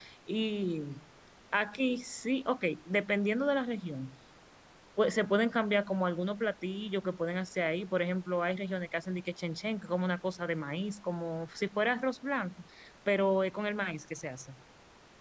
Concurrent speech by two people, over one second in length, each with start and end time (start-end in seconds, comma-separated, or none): none